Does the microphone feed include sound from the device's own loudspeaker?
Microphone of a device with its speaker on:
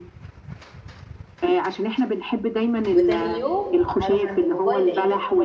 Yes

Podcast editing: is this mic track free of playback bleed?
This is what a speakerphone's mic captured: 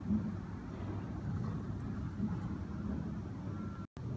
Yes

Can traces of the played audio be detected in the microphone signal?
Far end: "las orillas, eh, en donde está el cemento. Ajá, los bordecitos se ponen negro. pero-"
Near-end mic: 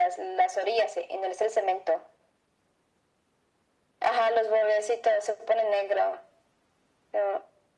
Yes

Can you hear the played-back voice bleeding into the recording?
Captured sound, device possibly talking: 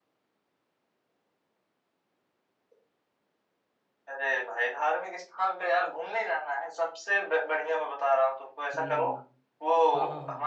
Yes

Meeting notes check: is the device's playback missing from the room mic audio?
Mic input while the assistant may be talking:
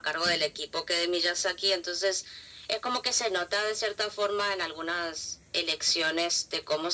No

